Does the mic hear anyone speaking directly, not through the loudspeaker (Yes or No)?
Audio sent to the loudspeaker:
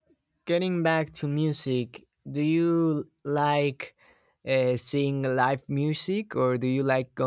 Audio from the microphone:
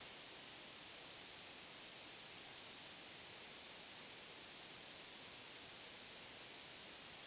No